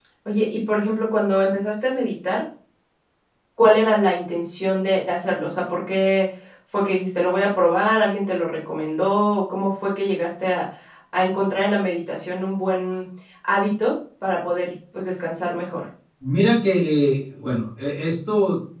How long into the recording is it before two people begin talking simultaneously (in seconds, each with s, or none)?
none